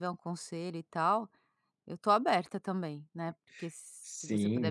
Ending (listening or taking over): taking over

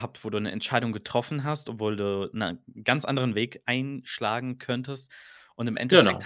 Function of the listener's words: listening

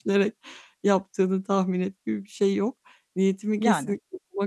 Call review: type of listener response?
listening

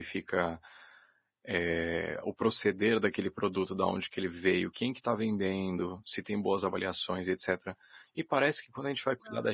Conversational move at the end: listening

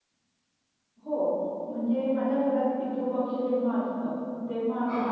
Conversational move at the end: listening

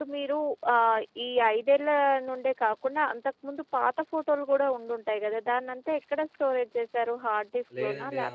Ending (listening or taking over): taking over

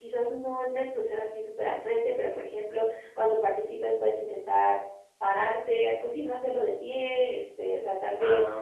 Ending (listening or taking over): listening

